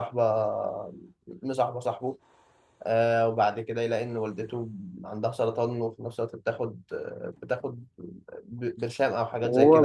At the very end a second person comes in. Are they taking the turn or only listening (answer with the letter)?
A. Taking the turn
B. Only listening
A